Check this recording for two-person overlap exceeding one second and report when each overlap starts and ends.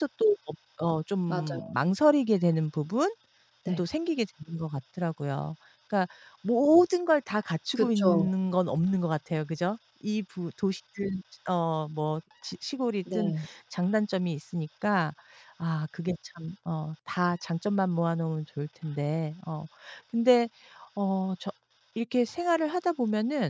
none

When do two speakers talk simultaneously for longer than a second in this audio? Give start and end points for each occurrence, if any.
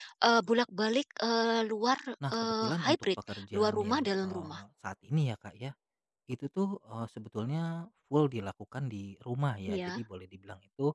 2.3-4.6

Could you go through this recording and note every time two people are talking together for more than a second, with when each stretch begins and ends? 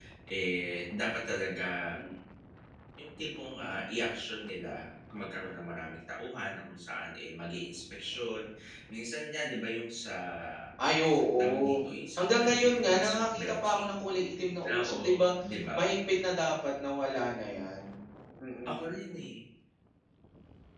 12.2-13.9

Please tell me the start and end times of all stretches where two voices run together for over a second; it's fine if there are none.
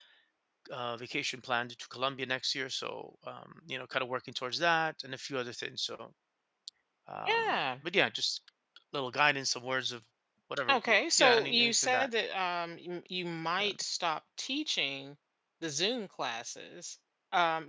10.7-12.1

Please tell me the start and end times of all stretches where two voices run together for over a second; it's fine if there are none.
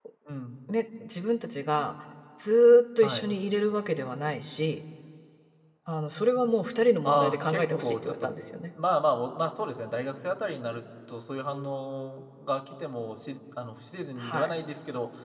7.0-8.3

